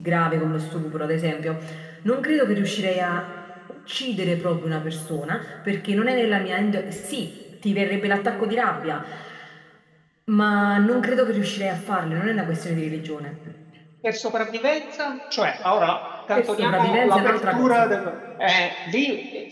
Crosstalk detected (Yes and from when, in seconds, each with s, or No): Yes, from 16.3 s